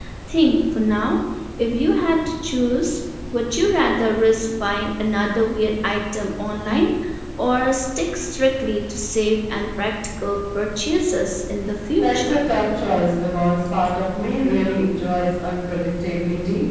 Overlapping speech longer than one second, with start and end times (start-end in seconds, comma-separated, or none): none